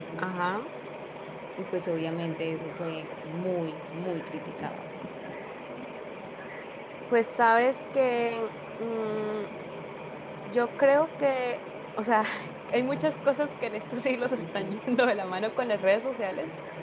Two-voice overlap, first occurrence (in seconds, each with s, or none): none